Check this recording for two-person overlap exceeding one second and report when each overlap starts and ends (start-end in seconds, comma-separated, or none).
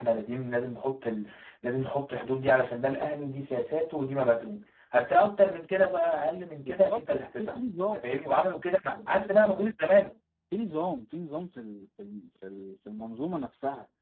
6.6-8.0